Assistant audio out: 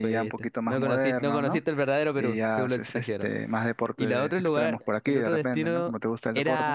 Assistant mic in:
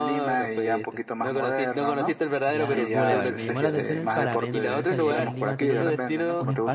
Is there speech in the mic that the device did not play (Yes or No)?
Yes